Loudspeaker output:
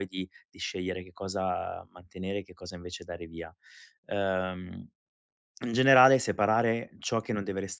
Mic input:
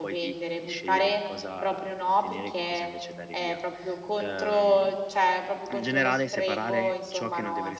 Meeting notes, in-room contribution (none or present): present